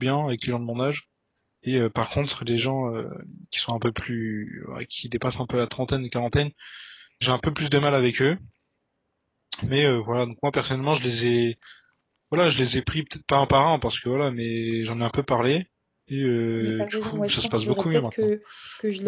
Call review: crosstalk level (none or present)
present